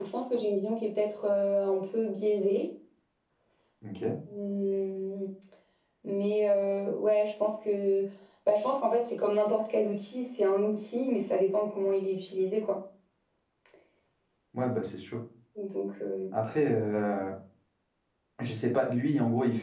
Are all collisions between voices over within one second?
Yes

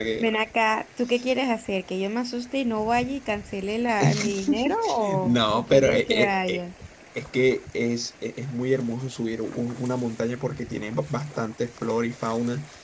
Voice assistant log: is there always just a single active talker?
No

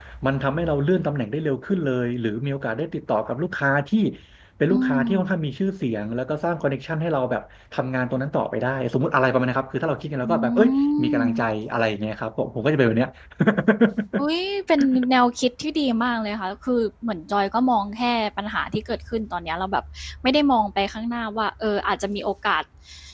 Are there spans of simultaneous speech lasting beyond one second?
Yes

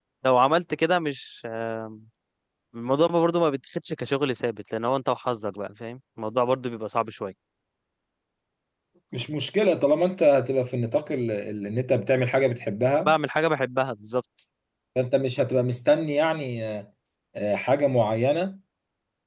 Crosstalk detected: No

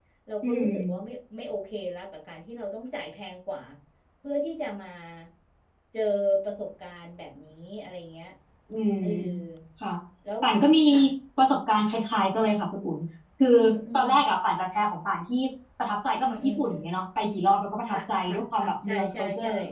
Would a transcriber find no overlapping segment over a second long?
No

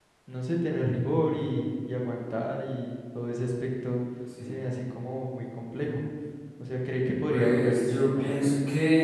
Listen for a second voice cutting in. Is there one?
Yes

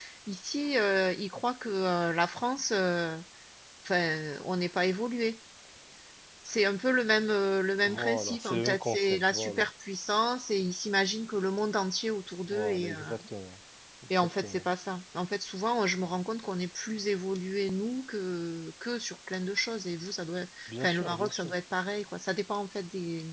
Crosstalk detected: Yes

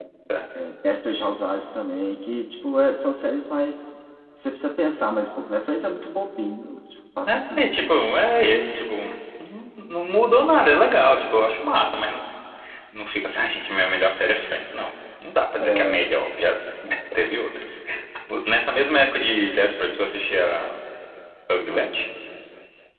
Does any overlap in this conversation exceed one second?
No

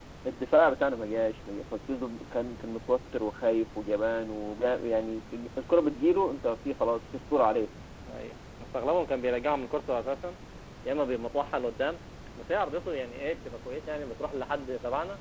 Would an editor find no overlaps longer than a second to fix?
Yes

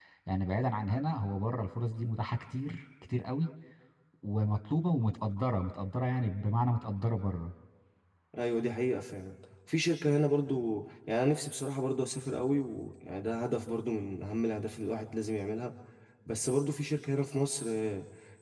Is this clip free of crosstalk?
Yes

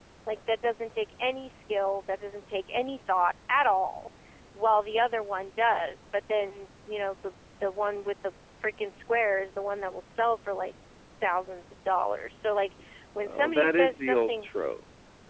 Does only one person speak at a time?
No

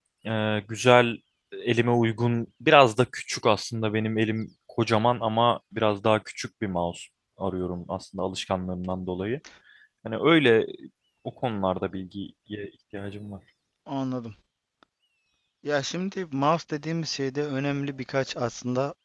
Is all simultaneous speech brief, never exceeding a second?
Yes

